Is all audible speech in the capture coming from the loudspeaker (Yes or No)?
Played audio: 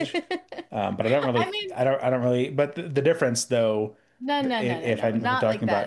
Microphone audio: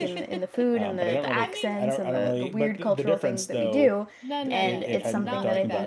No